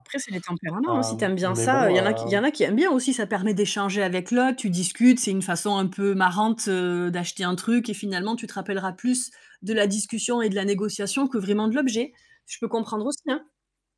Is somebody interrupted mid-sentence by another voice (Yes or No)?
Yes